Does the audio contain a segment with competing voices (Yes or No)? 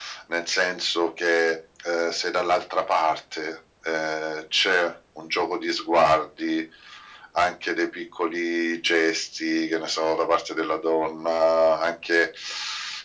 No